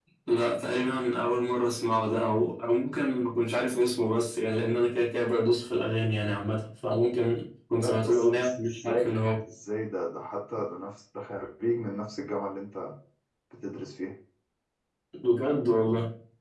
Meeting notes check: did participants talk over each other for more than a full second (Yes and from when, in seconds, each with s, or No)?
Yes, from 7.8 s